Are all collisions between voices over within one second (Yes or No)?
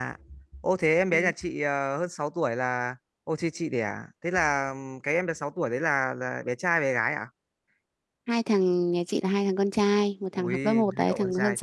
No